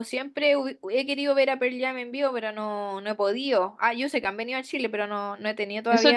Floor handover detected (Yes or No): Yes